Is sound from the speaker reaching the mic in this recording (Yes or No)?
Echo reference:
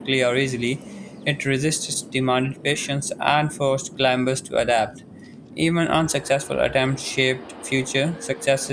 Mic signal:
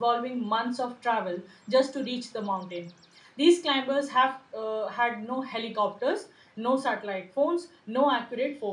No